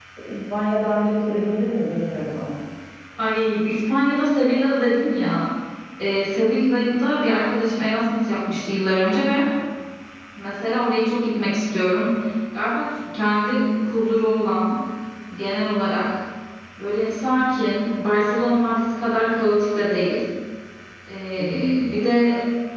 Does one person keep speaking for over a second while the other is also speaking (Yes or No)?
No